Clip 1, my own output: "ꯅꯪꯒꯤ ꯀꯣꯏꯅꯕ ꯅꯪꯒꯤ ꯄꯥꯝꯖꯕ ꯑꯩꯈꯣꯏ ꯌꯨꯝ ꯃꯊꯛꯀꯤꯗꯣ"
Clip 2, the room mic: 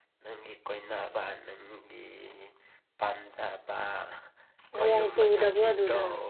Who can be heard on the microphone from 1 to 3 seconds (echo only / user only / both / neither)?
echo only